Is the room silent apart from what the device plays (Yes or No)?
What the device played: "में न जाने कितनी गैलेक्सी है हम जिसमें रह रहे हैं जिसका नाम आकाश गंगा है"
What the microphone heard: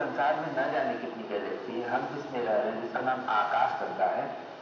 Yes